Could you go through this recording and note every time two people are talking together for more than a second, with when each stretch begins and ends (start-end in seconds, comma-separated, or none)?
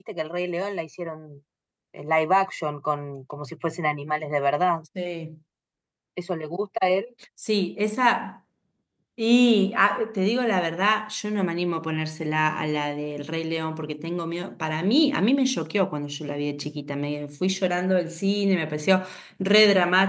none